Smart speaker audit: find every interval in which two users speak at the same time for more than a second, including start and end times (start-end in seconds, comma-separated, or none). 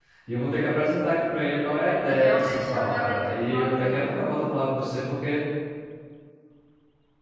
2.1-4.2